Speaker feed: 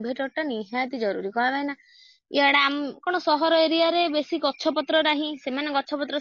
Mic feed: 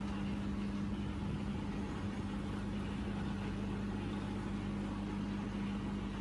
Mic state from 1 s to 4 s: neither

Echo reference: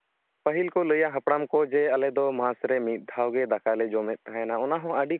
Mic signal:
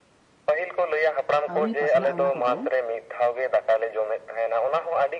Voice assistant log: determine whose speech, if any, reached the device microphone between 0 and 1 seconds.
echo only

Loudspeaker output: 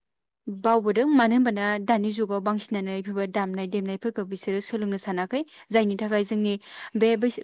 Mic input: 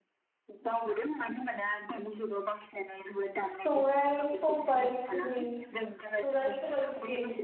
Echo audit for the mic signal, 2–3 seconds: echo only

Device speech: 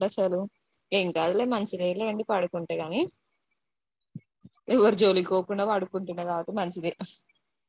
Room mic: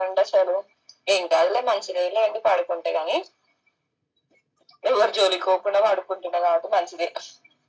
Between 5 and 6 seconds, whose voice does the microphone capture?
echo only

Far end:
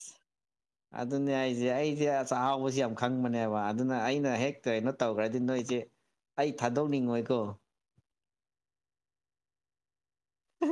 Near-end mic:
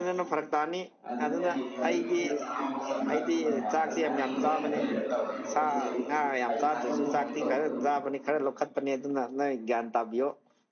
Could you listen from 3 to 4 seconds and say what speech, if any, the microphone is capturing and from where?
both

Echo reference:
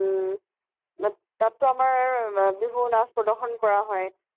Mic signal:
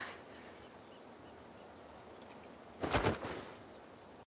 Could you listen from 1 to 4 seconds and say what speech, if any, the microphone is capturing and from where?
neither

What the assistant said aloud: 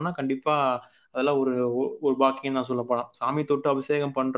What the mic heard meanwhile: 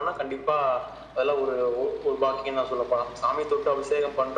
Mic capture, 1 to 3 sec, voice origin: echo only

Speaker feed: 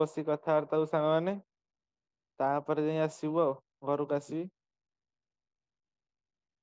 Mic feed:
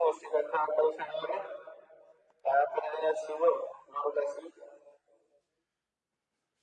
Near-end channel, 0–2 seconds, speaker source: echo only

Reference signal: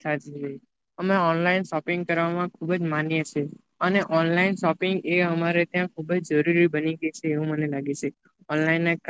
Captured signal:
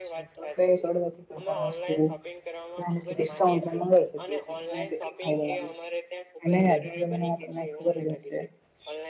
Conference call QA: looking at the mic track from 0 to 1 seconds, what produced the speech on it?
both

